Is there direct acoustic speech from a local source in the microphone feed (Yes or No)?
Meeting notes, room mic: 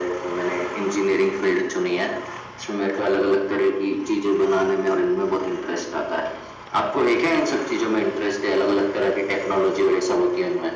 No